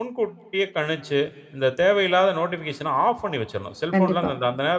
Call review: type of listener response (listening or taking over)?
listening